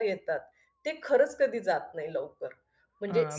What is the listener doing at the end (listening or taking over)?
taking over